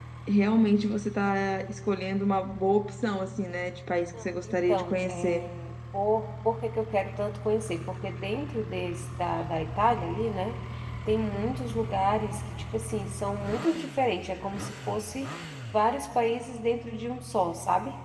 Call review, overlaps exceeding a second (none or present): present